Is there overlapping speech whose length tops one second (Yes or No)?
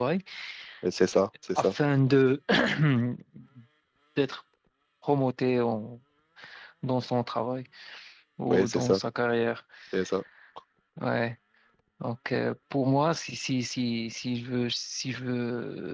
No